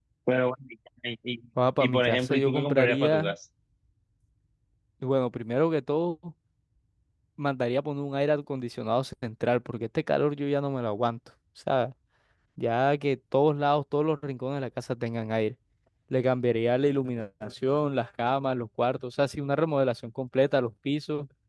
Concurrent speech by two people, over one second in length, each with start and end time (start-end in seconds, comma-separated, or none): 1.8-3.3